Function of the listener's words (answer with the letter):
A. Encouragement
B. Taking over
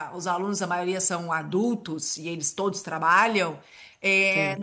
A